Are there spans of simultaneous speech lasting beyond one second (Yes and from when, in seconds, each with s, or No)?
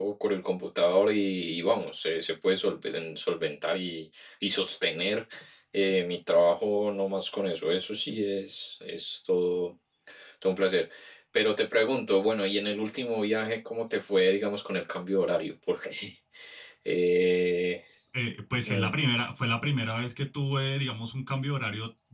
No